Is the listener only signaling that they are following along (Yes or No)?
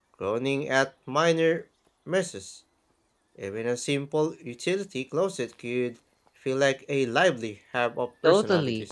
No